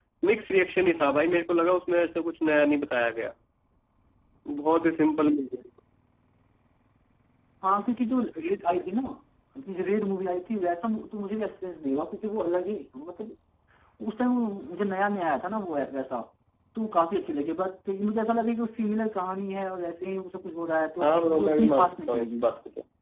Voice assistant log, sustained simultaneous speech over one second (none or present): present